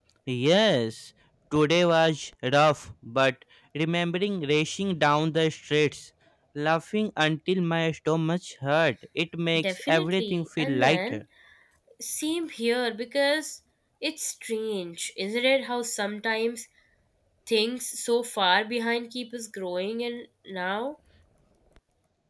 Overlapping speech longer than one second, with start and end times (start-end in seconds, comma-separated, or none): 9.6-11.2